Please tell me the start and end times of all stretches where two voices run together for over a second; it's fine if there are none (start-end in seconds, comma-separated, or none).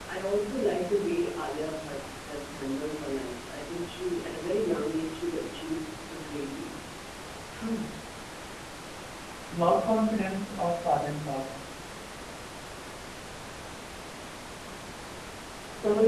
none